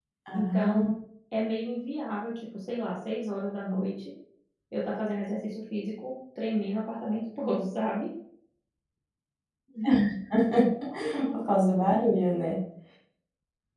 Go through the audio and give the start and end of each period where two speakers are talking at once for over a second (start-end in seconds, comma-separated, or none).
none